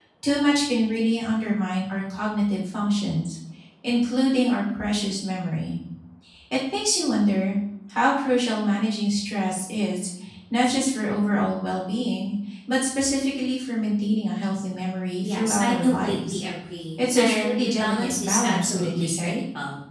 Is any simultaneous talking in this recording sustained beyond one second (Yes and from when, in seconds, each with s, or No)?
Yes, from 15.2 s